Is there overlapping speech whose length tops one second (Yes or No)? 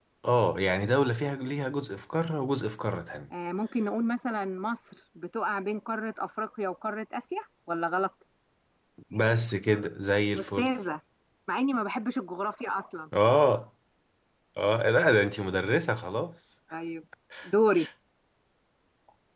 No